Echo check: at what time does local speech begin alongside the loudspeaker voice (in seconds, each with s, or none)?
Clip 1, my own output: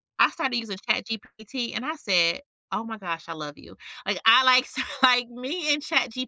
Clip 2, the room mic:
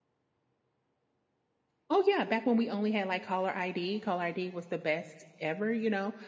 1.9 s